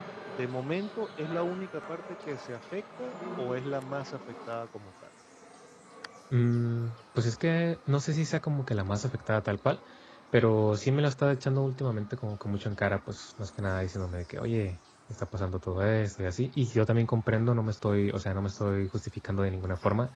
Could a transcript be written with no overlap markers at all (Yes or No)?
Yes